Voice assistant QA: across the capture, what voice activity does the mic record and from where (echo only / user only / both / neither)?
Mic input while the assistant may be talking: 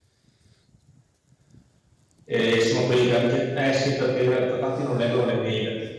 user only